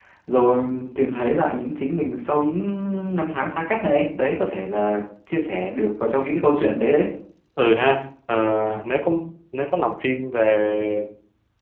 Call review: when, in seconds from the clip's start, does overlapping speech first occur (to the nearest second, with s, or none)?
none